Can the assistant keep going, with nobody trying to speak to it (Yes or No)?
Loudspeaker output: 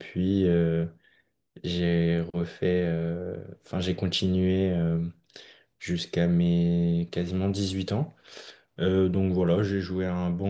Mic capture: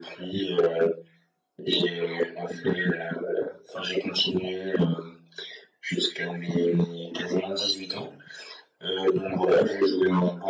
Yes